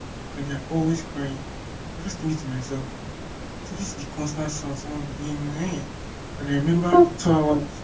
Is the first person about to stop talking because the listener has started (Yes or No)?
No